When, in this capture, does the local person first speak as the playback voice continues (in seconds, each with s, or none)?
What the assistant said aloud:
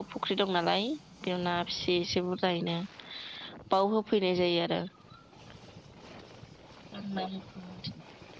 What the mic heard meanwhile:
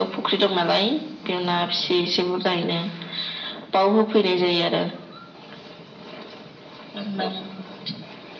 none